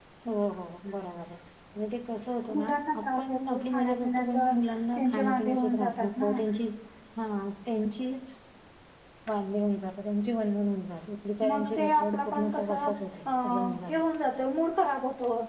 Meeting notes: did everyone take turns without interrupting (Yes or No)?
No